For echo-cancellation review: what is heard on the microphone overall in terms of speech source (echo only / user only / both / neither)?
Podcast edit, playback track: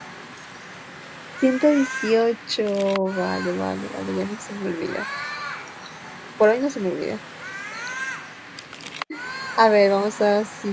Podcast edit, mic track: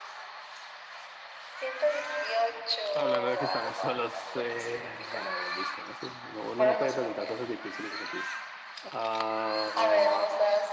both